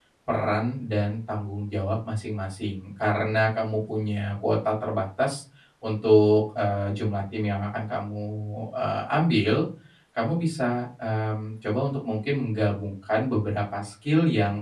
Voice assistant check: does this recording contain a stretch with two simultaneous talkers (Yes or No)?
No